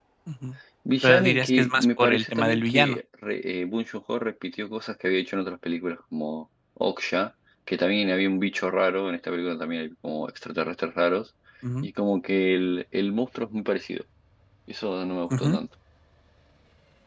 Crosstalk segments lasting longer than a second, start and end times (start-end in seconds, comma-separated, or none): 1.0-3.0